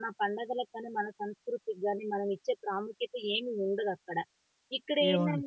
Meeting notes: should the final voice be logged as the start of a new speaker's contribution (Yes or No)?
No